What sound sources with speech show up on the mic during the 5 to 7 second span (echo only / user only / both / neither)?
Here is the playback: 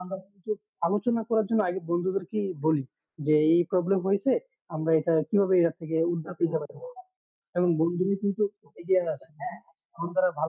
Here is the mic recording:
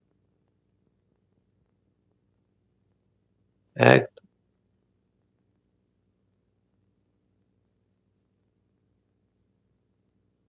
neither